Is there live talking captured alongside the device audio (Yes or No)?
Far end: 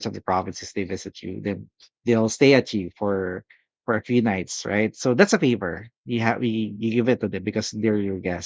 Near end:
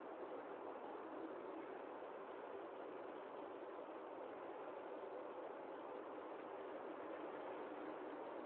No